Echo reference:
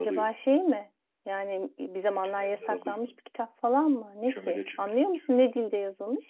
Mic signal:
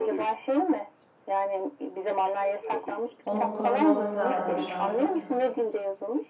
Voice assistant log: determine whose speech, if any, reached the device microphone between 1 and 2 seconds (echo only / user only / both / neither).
echo only